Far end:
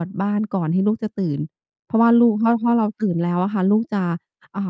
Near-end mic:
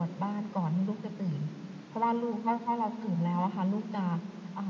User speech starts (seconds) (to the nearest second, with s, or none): none